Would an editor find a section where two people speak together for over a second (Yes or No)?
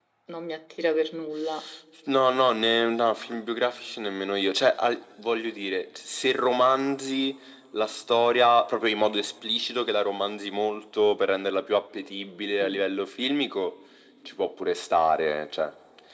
No